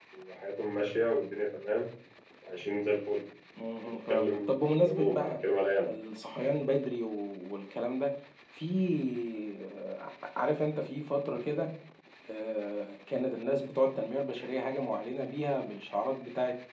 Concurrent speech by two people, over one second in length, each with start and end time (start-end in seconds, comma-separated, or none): 3.8-5.3